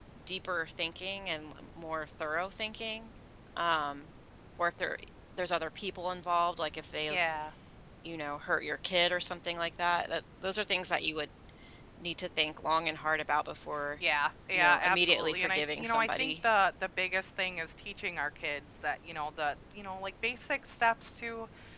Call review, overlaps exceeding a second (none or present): present